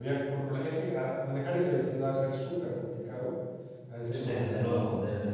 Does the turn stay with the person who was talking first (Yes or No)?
No